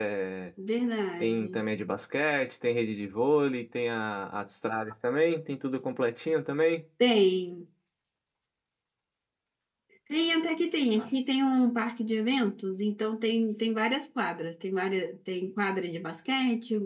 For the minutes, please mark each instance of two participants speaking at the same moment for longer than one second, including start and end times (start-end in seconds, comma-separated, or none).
none